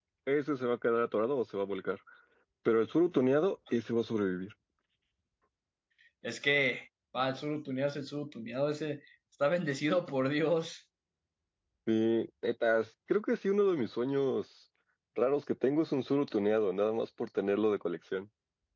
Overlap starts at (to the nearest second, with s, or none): none